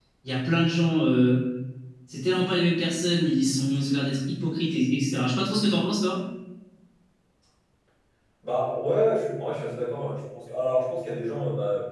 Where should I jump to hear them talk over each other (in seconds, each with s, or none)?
none